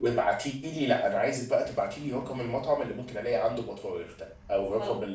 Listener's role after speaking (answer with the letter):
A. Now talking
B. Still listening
B